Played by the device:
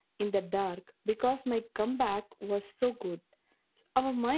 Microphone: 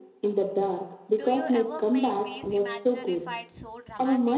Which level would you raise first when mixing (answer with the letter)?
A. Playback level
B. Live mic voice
B